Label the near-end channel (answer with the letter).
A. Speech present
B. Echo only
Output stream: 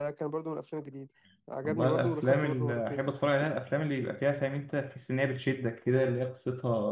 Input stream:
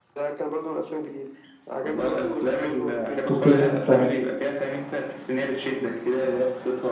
A